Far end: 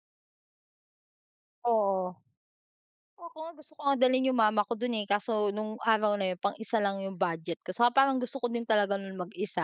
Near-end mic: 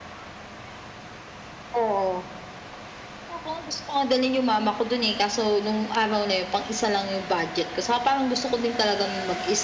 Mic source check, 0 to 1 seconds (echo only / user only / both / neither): neither